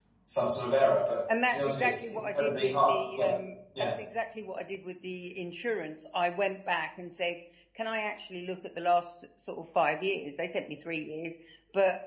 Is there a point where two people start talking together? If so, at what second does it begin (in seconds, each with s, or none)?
1.3 s